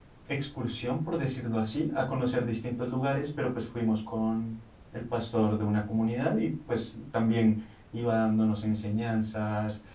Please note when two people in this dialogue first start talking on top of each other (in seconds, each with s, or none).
none